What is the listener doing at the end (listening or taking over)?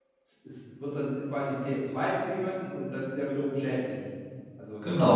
taking over